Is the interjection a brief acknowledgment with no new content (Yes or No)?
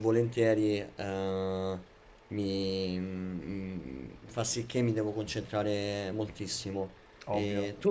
Yes